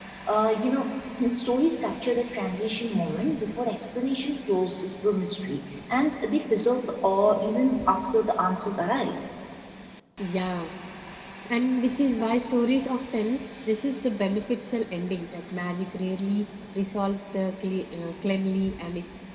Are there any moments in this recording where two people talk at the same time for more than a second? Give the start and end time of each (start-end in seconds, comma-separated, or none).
none